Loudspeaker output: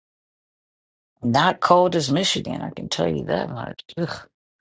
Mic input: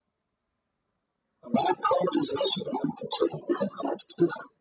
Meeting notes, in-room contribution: none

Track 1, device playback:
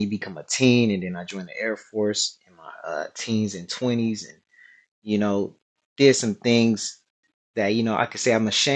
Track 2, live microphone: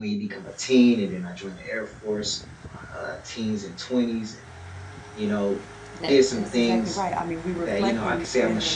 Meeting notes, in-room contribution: present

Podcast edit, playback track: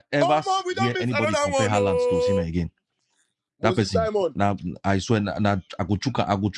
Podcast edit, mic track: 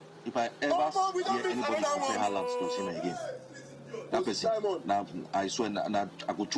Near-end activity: present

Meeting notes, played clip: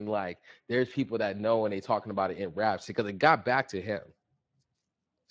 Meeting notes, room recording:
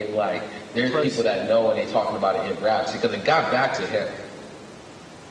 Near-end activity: present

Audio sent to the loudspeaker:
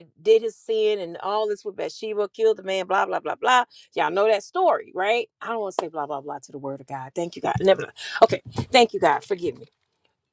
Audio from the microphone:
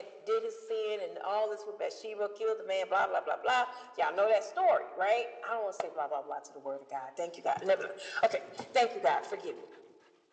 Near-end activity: none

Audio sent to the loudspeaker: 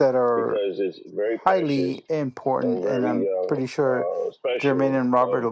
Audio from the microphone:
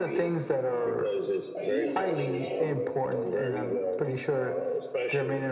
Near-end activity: present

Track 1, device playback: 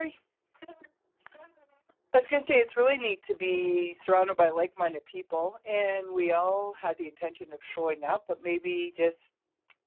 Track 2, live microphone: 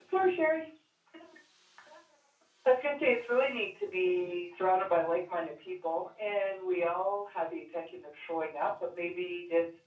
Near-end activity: none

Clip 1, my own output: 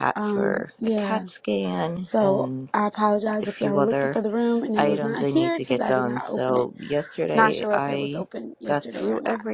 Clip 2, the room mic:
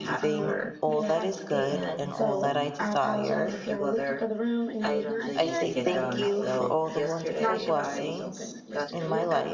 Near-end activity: present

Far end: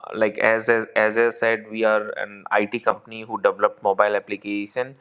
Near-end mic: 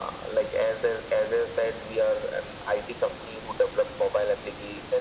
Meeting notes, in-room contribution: none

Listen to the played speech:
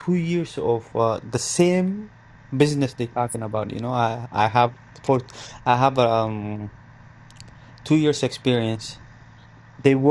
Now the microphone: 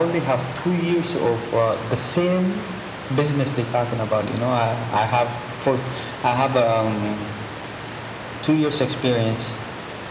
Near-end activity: none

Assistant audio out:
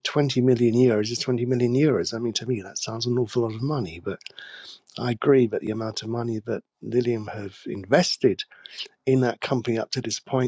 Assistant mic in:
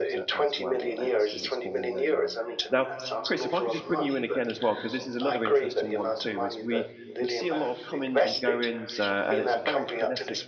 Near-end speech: present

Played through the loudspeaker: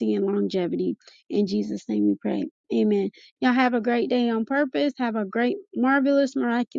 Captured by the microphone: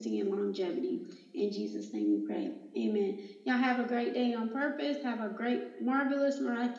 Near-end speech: none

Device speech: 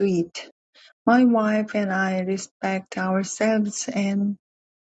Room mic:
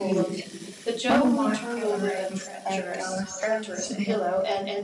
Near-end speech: present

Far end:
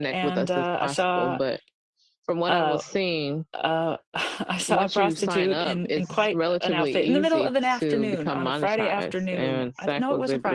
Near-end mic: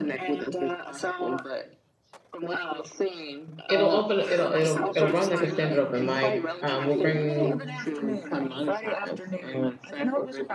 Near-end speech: present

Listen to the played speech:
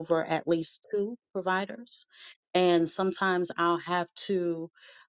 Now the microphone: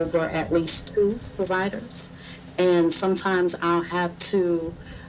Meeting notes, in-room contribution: none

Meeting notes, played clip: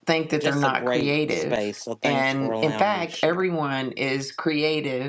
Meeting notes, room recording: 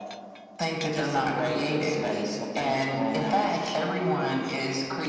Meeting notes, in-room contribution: none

